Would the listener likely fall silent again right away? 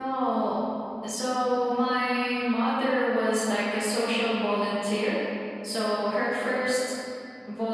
Yes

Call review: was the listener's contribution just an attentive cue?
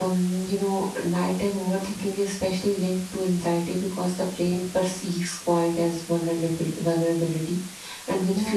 Yes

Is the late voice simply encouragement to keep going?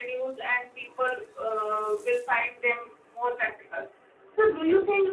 Yes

